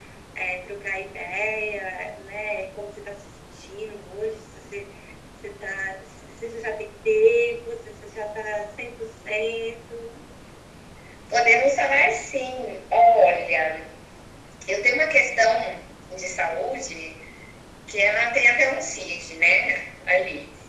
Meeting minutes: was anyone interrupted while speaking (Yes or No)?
No